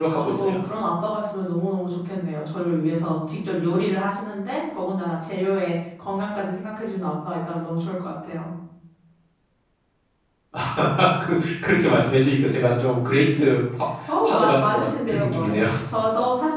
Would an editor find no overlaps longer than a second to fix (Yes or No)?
No